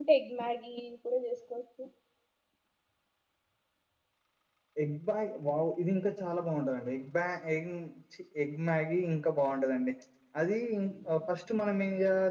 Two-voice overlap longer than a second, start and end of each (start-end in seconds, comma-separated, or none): none